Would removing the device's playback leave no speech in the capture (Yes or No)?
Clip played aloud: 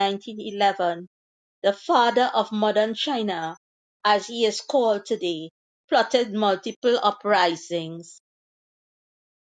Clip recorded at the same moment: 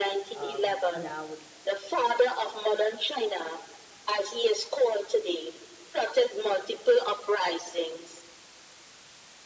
No